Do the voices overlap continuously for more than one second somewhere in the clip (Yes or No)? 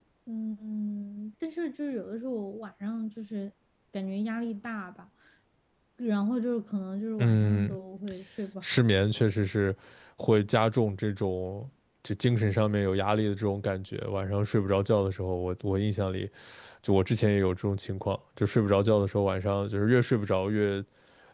No